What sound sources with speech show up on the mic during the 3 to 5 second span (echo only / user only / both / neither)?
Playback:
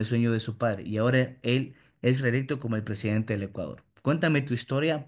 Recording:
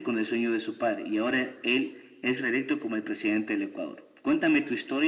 echo only